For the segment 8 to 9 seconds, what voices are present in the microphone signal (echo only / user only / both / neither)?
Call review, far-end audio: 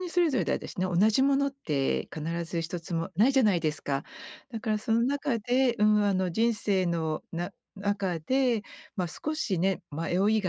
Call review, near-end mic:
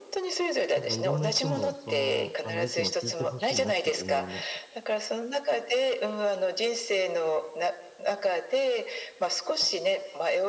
echo only